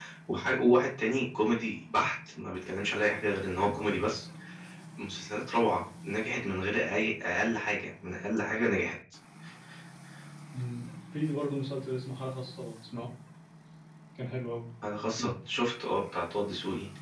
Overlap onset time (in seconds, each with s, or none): none